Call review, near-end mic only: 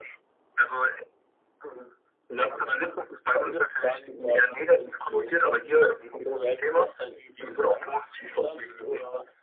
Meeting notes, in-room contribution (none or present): none